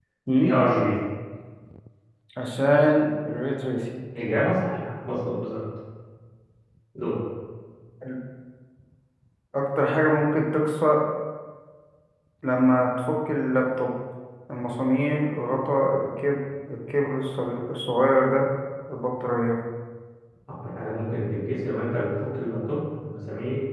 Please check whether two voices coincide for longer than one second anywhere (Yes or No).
No